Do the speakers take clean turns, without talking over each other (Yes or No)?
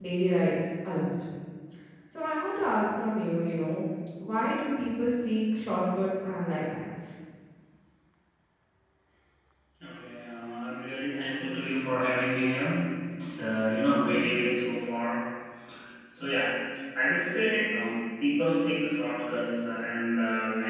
Yes